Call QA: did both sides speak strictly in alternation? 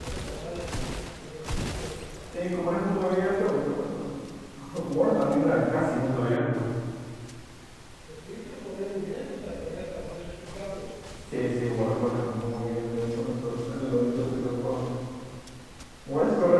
Yes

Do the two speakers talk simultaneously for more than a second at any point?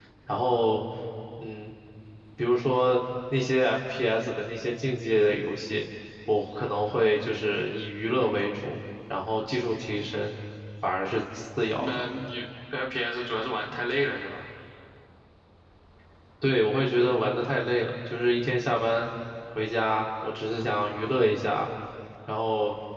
No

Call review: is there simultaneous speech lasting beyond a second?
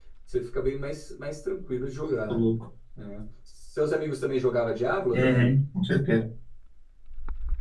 No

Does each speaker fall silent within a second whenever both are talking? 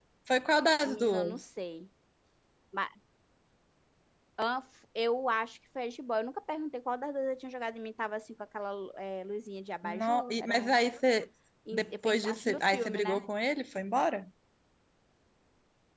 No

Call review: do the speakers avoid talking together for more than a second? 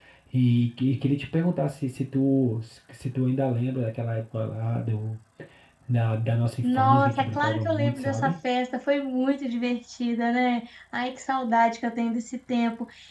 No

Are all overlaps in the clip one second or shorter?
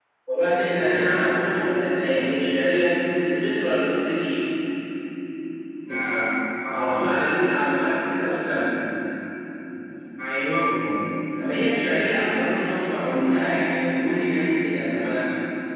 Yes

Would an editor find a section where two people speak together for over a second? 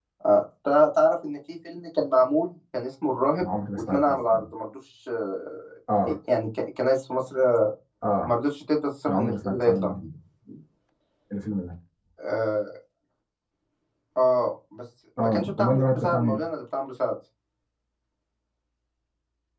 Yes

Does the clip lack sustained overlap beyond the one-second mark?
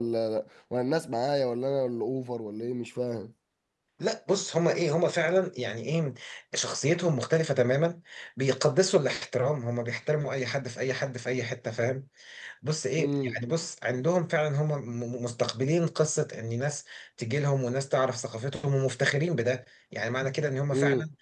Yes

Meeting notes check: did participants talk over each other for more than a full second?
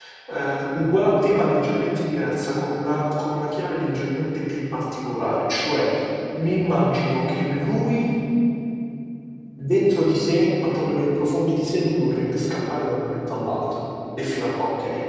No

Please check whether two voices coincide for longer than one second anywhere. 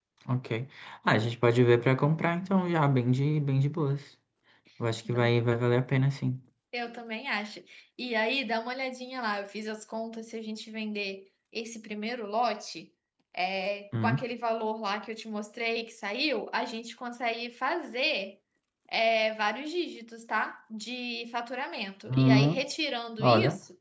No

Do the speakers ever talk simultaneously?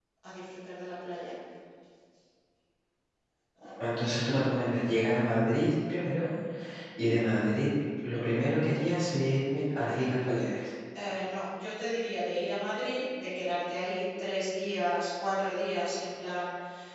No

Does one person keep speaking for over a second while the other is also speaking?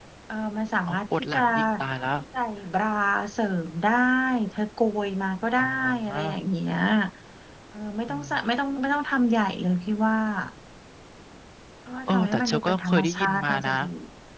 Yes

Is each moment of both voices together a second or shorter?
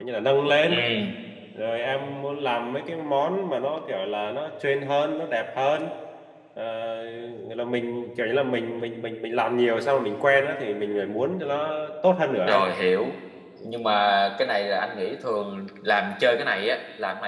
Yes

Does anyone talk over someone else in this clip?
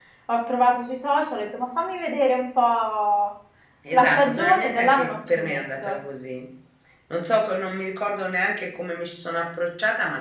Yes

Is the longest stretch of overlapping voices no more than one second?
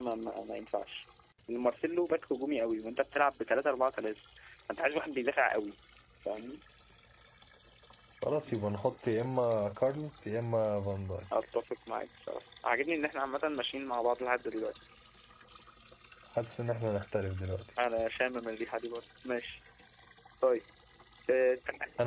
Yes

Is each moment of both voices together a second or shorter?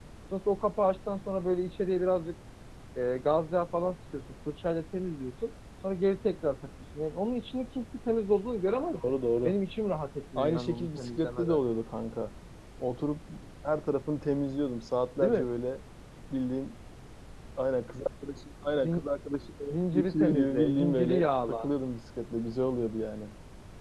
No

